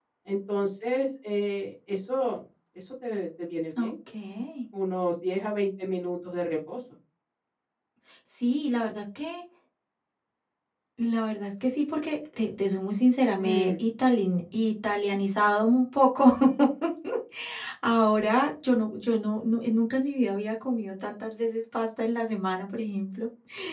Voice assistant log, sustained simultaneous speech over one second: none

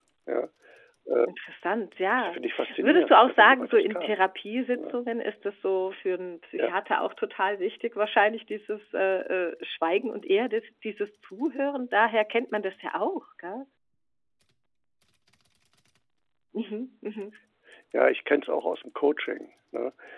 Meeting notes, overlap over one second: present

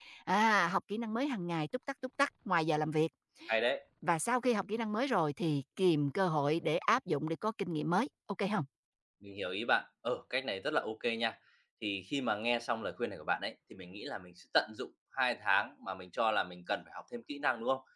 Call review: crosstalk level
none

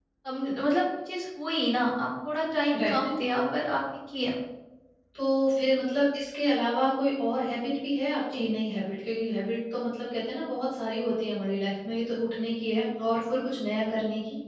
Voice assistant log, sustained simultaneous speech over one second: none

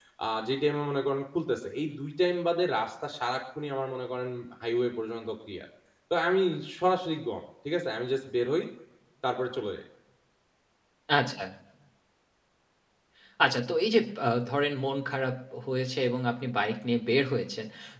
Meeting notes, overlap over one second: none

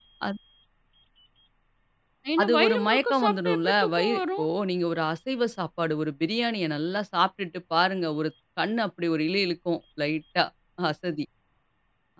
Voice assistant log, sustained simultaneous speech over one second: present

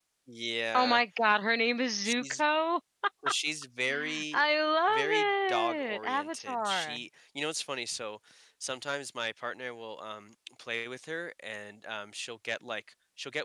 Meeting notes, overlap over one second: present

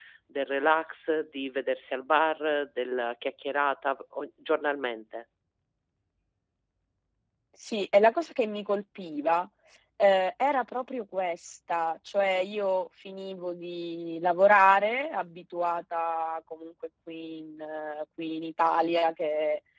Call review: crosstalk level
none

